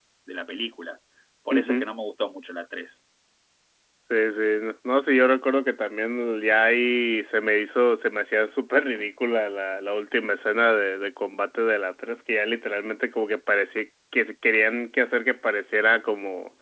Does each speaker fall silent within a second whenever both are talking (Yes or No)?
Yes